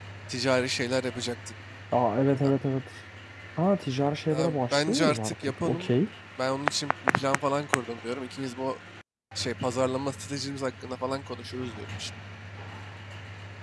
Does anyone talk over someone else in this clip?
Yes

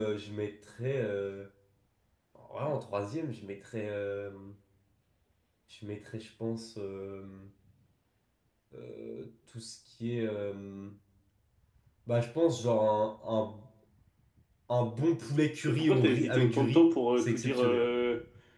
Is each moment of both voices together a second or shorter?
No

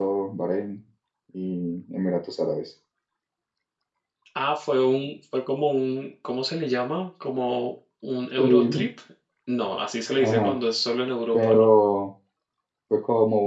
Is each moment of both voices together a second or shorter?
Yes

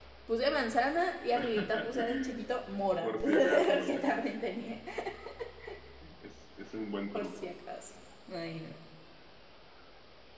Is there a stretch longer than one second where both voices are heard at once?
Yes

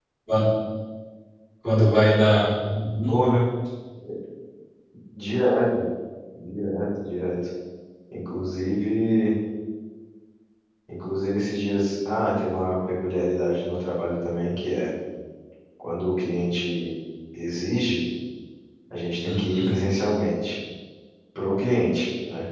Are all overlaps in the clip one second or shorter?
Yes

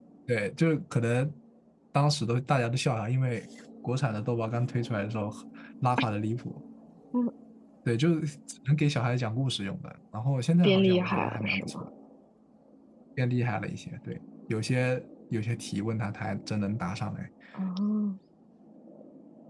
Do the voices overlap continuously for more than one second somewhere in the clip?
Yes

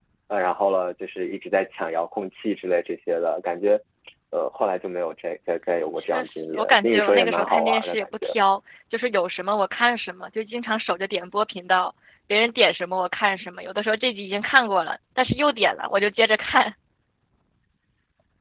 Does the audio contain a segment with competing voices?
Yes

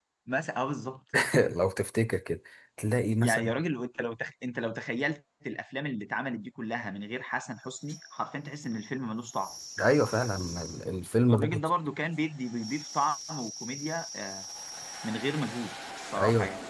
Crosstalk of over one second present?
No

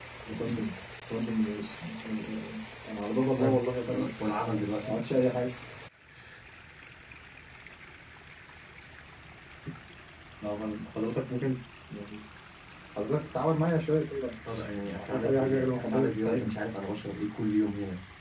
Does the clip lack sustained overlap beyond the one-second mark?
No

